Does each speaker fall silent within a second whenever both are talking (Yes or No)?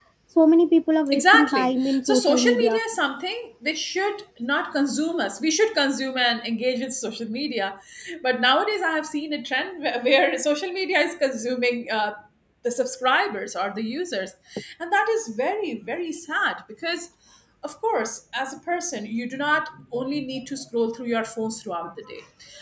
No